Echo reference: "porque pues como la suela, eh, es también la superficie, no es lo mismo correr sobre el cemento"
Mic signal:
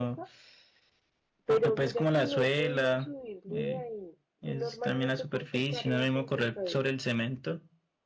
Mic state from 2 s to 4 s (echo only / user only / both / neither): both